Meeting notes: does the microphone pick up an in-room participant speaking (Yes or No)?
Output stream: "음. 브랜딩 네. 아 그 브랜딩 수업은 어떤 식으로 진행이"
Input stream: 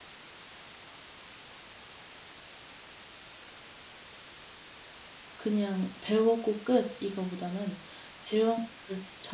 Yes